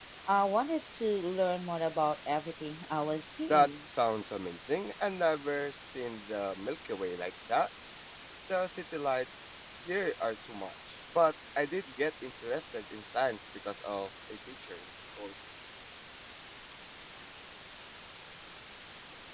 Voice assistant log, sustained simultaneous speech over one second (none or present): none